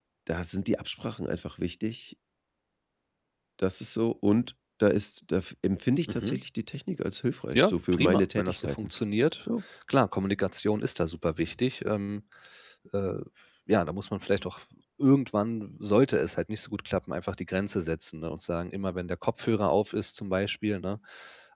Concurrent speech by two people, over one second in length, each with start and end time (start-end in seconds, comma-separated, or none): 7.5-8.9